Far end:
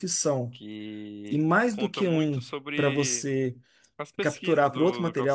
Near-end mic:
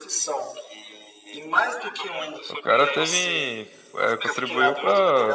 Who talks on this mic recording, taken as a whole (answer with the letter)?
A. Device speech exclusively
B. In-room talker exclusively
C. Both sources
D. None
C